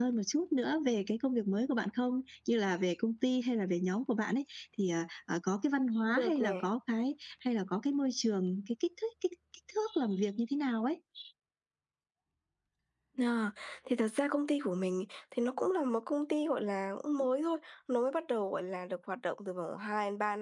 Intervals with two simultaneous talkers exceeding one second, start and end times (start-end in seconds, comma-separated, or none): none